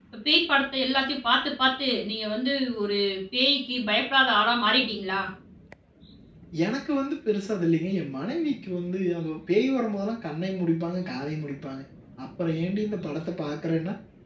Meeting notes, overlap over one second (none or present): none